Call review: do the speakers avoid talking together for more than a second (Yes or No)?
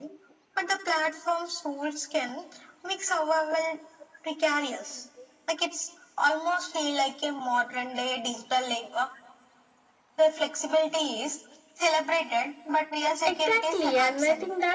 No